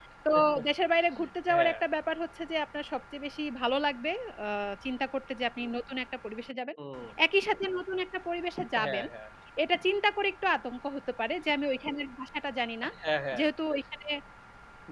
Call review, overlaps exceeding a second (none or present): none